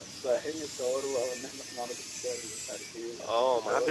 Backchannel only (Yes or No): No